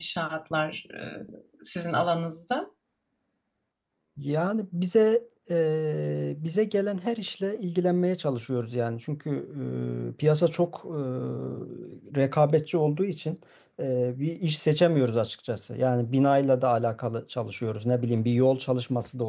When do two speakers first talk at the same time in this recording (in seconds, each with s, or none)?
none